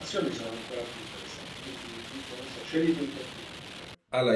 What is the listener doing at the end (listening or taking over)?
taking over